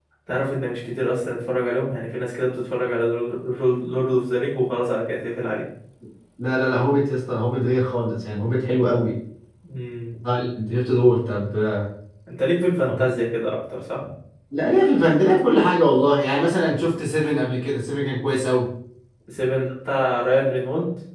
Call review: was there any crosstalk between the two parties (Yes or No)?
No